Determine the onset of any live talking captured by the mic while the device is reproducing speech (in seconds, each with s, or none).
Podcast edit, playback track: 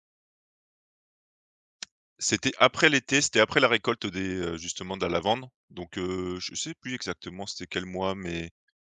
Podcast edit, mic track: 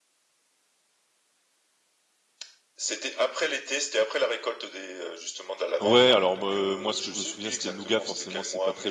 5.8 s